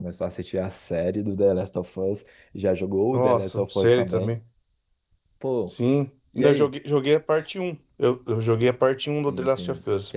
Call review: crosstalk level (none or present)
present